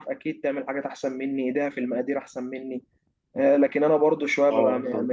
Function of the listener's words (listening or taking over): listening